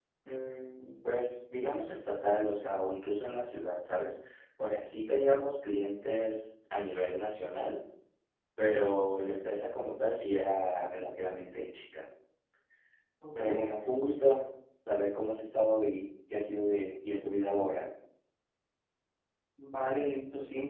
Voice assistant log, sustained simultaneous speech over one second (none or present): none